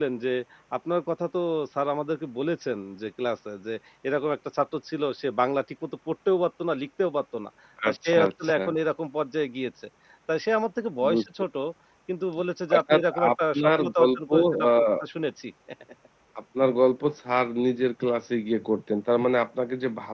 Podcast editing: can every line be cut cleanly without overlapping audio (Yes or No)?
No